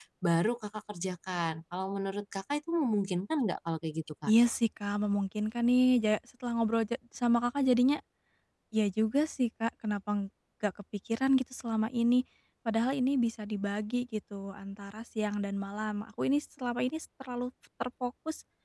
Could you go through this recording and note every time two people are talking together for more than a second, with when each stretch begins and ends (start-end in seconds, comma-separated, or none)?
none